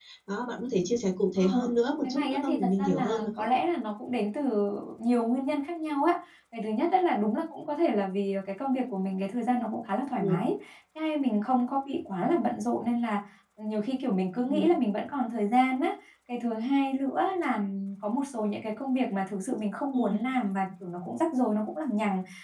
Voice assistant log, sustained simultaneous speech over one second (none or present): present